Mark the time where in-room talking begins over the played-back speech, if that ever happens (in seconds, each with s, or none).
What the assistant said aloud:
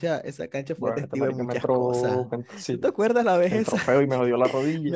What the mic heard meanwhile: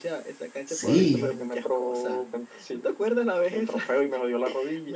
0.7 s